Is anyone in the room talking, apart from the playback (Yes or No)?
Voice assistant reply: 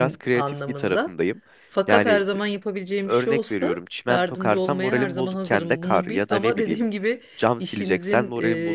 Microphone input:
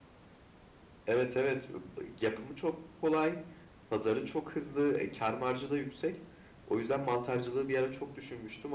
Yes